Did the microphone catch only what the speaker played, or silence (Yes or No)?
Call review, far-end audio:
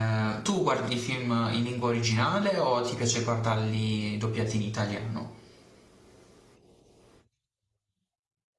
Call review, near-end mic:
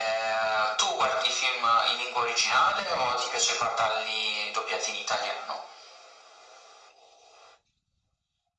Yes